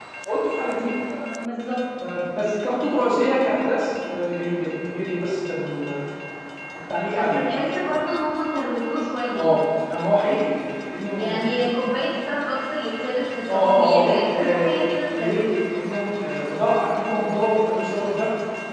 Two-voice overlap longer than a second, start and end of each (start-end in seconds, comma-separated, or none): 13.5-14.8